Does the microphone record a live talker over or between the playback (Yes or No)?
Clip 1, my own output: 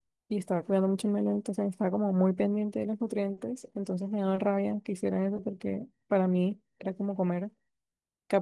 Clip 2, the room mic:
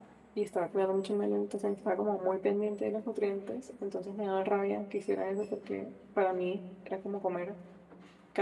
No